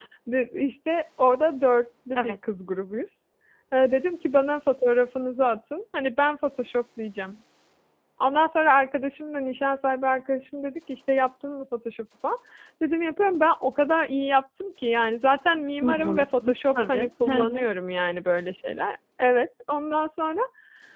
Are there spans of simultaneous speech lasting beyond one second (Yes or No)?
Yes